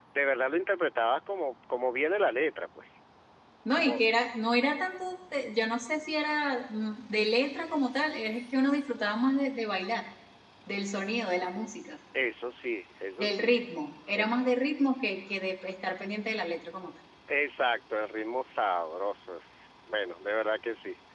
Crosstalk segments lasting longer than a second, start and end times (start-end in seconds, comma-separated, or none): none